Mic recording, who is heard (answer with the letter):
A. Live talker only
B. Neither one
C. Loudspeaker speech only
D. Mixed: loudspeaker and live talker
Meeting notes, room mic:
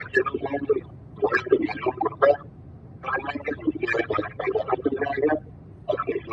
C